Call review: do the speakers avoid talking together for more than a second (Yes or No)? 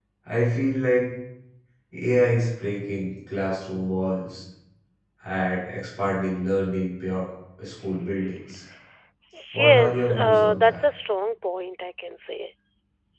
No